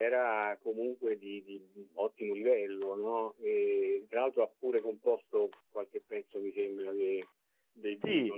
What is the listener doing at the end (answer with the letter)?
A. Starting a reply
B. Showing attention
A